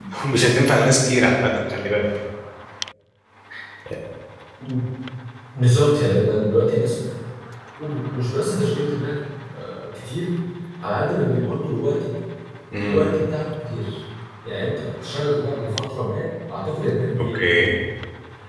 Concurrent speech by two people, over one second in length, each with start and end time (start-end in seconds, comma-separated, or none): none